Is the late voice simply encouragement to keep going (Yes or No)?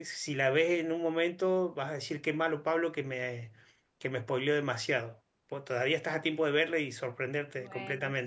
No